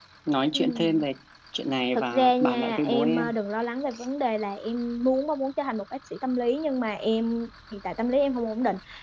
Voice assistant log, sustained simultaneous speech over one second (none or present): present